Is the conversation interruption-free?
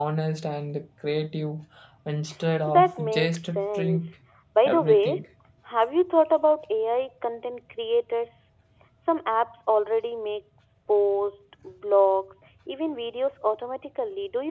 No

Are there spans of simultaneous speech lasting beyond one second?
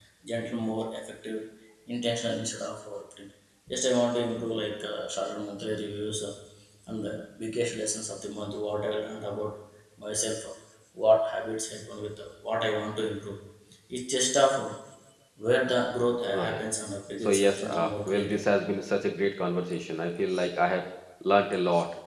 Yes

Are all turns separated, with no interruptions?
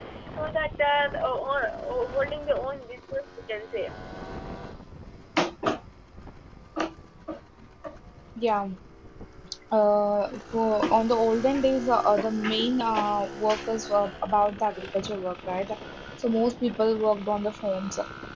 Yes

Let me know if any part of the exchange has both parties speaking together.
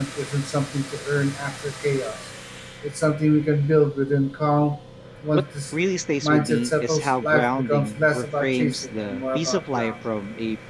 Yes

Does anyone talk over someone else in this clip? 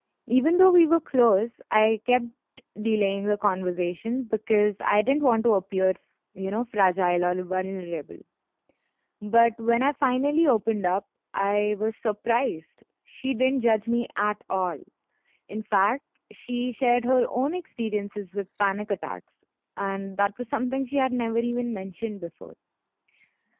No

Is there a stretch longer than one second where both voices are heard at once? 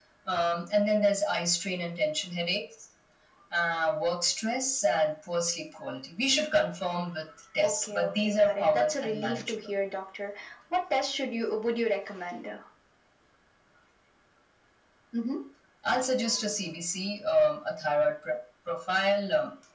Yes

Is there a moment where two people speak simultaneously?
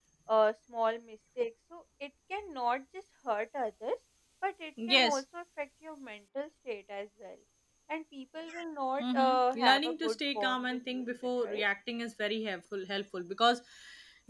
Yes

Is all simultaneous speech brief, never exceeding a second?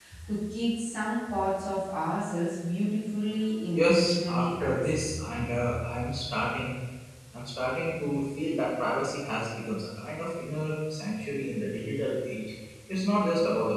No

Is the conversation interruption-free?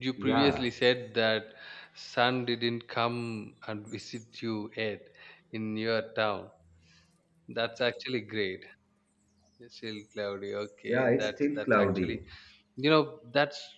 No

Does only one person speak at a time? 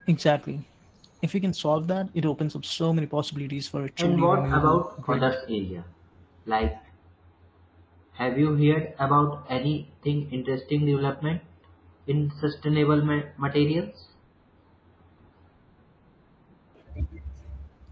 No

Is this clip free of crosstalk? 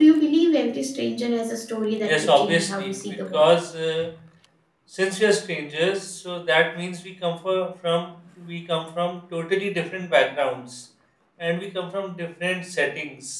No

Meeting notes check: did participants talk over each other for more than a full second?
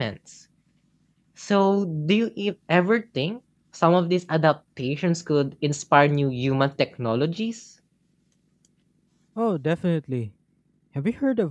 No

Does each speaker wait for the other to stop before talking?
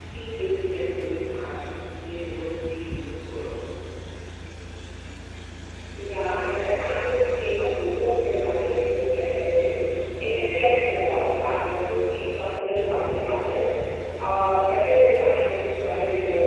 Yes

